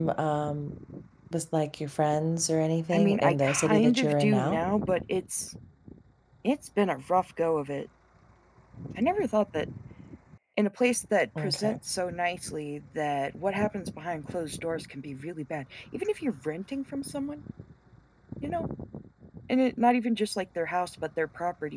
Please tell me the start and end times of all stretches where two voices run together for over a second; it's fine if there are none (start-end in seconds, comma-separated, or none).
2.9-4.6